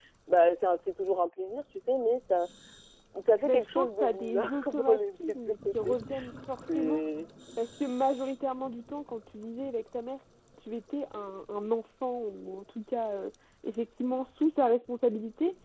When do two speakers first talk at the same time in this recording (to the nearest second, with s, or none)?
3 s